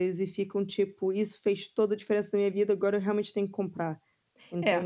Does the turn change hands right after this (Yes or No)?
Yes